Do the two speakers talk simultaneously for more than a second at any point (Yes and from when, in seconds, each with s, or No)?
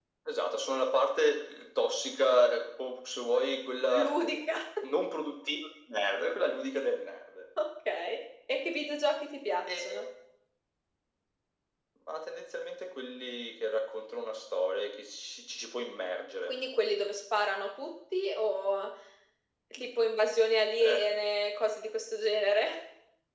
No